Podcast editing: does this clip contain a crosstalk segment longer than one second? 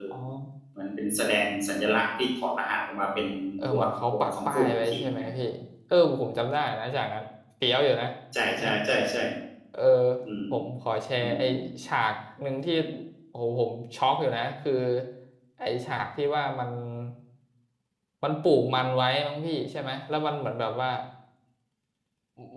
Yes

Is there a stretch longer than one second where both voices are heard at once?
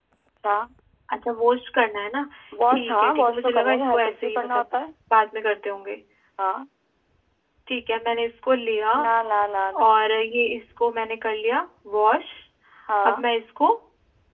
Yes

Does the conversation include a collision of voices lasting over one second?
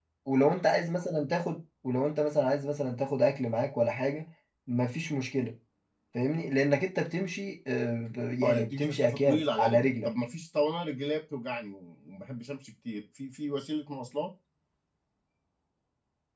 Yes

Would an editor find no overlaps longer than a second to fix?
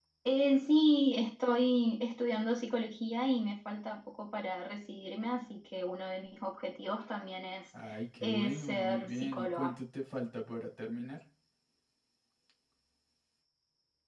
No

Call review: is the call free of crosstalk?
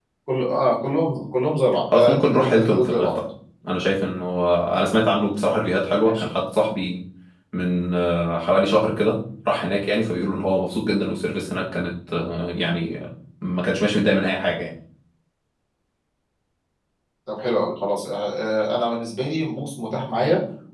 No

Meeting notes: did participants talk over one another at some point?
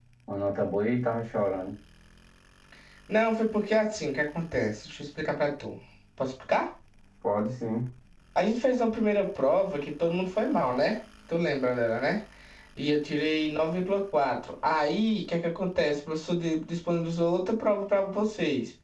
No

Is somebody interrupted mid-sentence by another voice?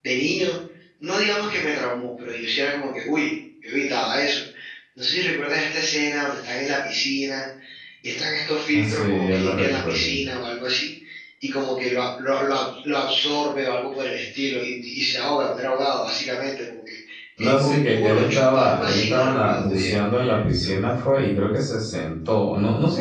Yes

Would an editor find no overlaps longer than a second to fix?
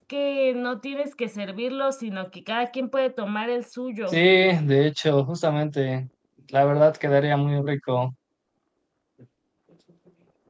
Yes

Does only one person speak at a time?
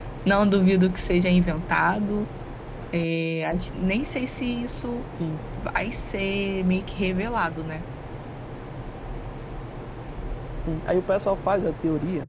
Yes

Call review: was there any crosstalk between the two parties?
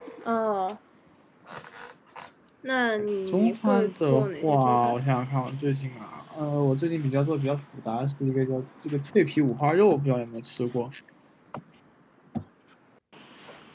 Yes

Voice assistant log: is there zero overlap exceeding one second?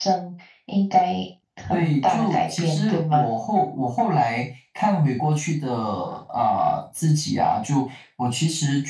No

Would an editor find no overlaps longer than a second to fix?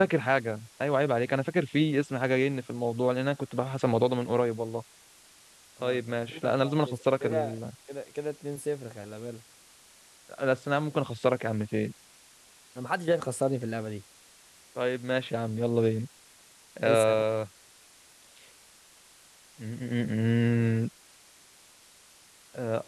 No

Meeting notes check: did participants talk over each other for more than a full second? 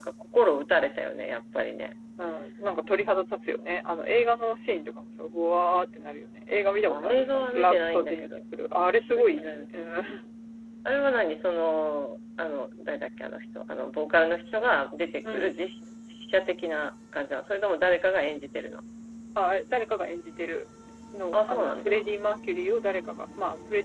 Yes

